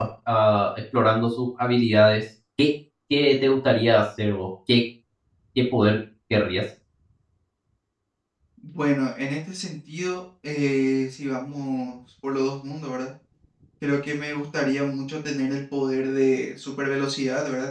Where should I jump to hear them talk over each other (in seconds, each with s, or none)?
none